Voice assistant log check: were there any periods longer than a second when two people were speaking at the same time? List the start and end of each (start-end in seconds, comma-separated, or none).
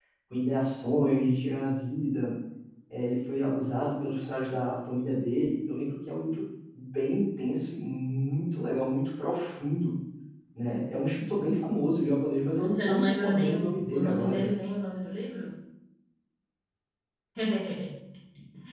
12.6-14.5